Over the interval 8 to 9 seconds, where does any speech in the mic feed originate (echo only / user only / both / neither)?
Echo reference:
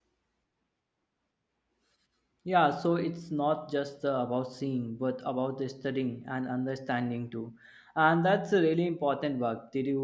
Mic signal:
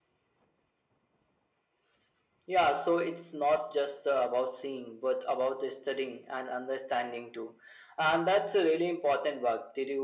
echo only